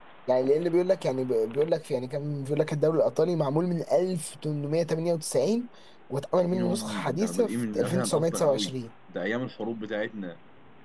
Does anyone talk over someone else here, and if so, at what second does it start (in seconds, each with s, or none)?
6.4 s